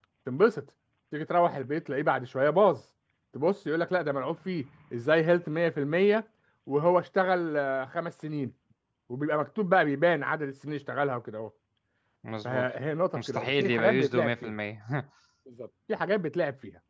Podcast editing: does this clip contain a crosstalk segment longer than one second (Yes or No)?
Yes